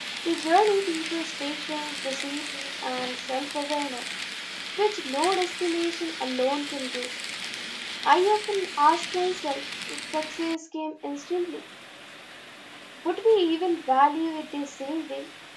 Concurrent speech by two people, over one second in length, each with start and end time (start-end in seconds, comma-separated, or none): none